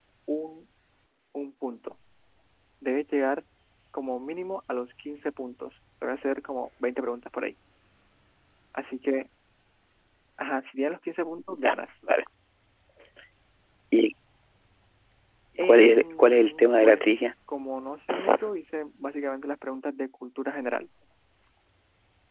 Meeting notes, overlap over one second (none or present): present